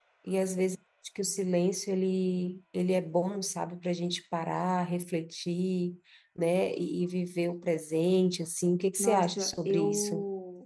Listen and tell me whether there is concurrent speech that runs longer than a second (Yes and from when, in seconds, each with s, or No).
Yes, from 9.0 s